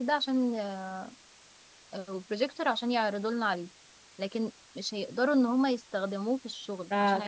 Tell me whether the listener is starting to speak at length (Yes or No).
Yes